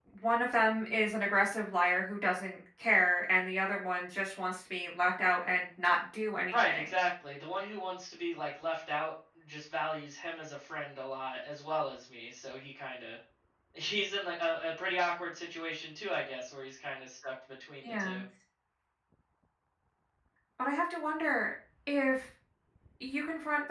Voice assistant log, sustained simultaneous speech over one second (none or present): none